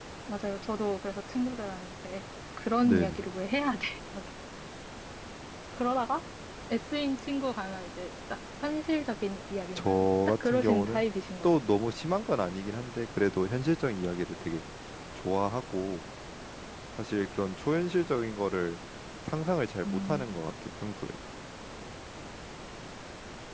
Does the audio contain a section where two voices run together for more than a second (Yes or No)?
Yes